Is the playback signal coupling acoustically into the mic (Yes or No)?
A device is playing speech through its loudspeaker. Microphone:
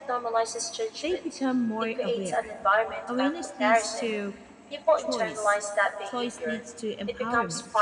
Yes